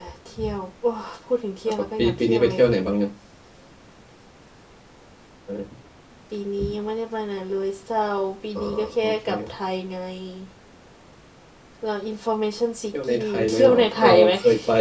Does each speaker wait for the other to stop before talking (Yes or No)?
No